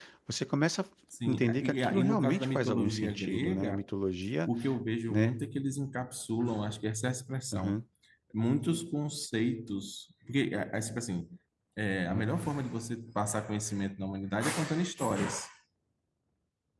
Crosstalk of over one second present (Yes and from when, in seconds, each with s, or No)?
Yes, from 1.3 s